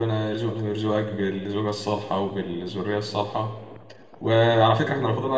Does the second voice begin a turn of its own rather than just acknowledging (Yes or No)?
No